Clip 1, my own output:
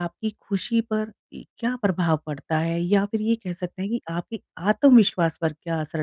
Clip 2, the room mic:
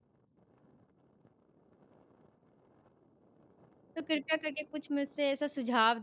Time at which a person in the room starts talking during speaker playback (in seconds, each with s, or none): 4.0 s